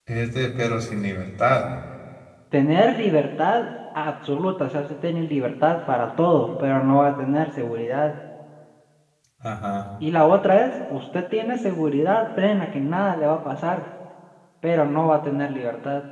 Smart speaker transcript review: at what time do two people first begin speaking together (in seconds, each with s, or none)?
none